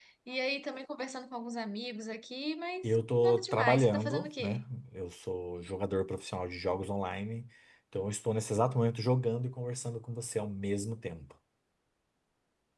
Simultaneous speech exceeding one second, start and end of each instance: 2.8-4.7

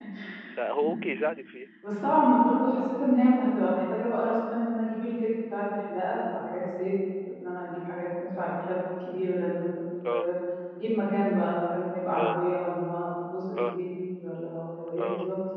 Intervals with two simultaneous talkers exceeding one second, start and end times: none

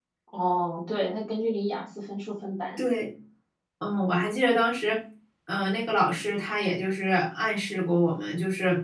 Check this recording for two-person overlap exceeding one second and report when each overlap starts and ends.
none

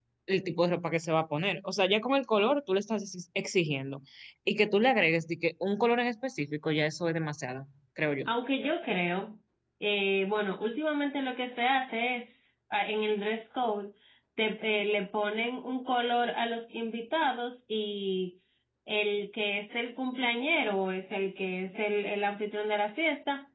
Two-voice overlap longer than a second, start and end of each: none

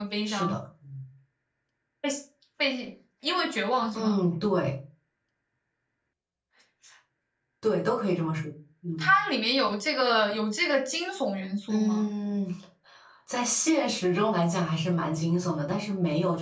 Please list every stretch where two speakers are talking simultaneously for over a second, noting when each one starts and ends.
none

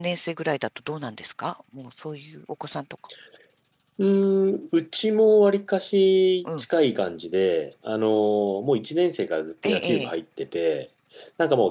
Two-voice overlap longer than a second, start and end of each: none

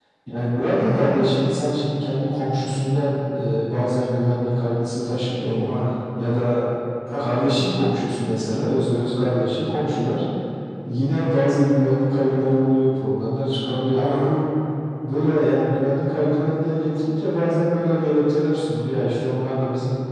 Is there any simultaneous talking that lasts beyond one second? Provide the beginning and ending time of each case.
none

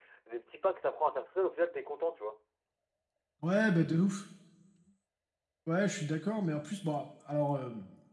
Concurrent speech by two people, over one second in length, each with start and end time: none

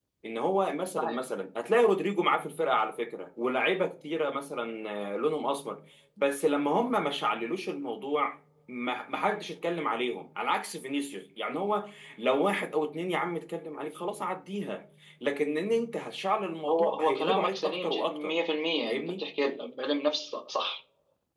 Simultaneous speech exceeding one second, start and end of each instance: 16.7-18.4

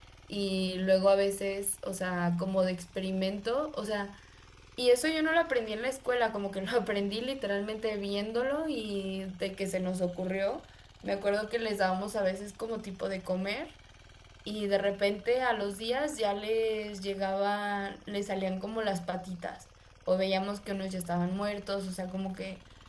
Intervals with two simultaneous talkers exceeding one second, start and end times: none

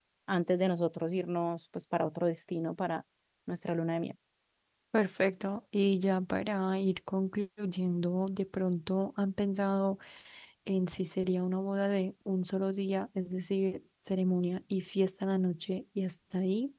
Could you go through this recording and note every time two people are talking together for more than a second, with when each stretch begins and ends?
none

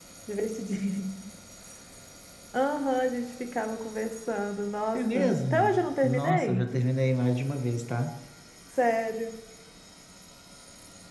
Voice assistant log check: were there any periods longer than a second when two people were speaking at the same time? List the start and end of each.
4.9-6.6

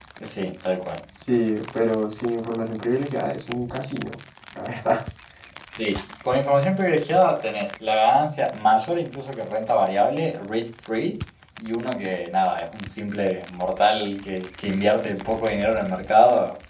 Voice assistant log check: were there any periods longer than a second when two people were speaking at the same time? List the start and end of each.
none

